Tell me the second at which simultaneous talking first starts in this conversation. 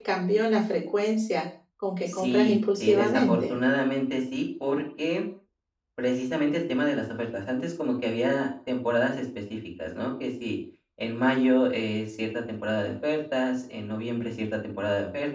2.1 s

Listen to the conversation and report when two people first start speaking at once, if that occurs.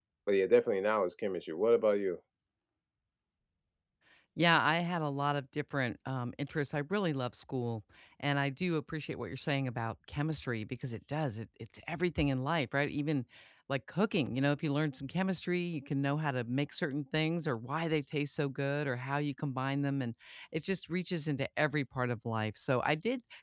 none

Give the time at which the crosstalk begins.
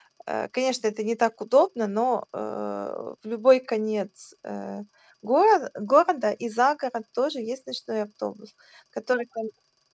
none

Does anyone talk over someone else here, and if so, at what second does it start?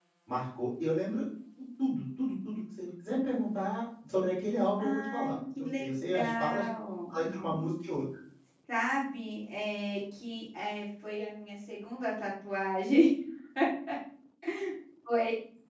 4.8 s

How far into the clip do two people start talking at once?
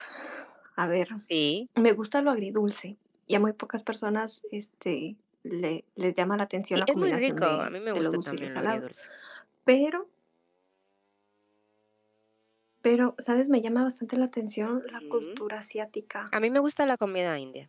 6.8 s

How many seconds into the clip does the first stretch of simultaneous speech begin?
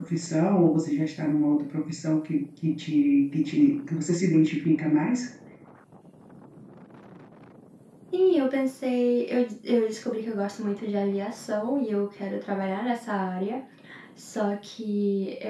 none

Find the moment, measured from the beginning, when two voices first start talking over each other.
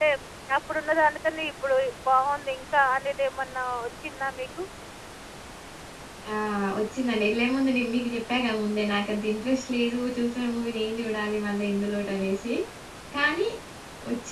none

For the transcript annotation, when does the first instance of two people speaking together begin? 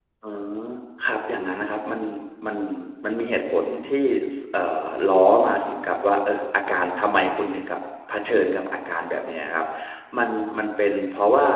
none

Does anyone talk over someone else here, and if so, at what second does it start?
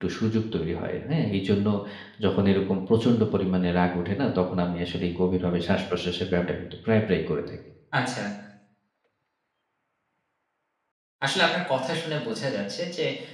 none

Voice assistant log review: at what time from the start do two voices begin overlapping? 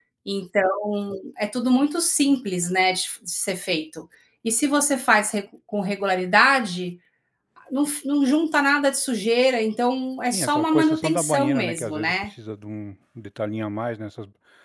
10.3 s

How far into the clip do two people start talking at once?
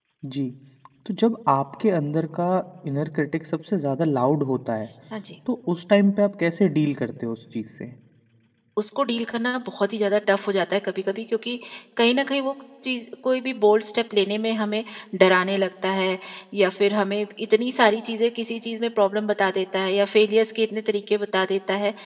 none

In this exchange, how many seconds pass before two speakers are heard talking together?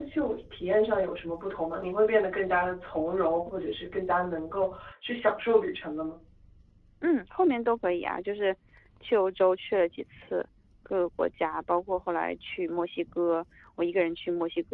none

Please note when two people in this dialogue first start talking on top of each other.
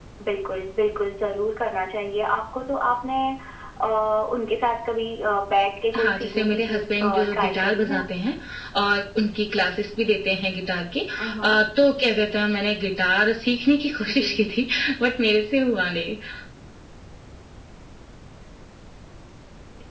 6.0 s

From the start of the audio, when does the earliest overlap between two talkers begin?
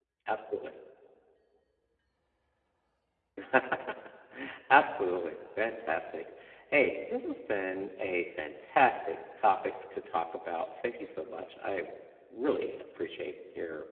none

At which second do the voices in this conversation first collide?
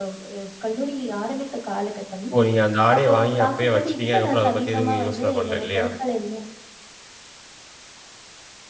3.0 s

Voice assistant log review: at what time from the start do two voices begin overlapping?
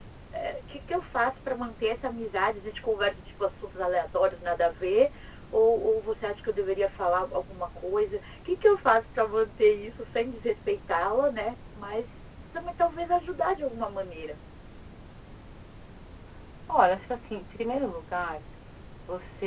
none

